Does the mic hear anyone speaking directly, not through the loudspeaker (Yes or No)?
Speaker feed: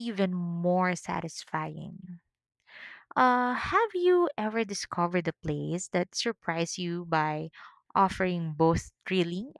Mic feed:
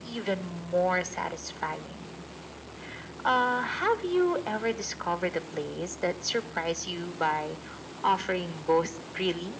No